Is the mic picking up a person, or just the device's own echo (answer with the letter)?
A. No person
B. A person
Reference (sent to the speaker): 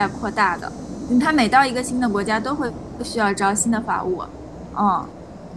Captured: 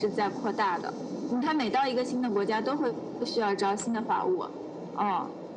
A